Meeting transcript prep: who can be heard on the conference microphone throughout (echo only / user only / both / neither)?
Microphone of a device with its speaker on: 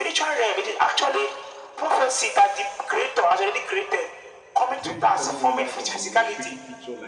both